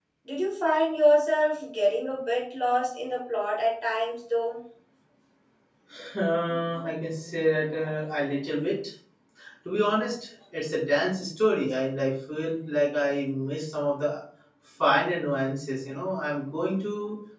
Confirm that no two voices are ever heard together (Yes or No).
Yes